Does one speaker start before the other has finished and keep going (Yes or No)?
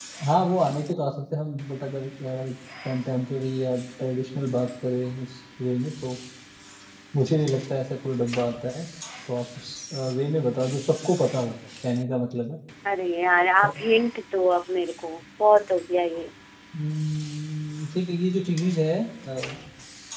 No